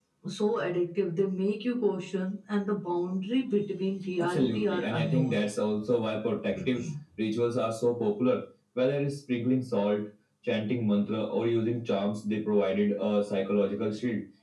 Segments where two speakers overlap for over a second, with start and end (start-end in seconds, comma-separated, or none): 4.2-5.4